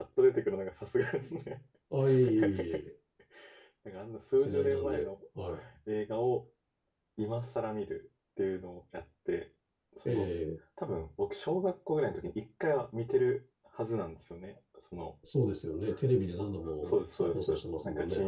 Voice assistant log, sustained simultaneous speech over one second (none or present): present